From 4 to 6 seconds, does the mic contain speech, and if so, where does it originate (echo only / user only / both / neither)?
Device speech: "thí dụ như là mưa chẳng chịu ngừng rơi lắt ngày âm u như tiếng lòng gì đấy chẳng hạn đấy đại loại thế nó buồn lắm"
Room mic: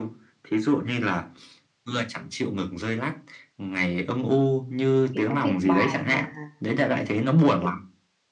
both